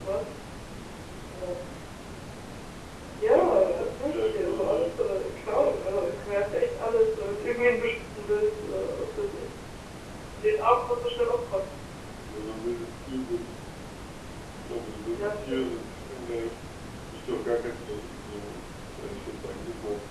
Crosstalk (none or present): present